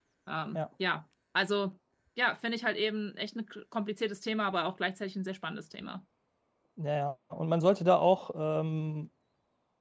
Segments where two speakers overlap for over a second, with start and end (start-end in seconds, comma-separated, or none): none